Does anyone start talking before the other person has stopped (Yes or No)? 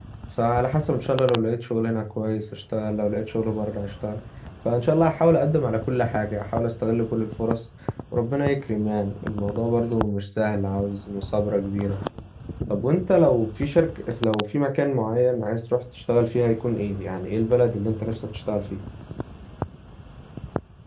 No